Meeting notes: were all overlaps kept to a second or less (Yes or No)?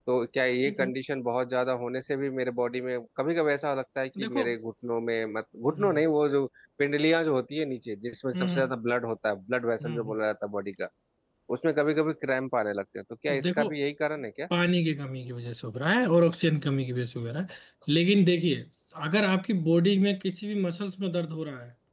Yes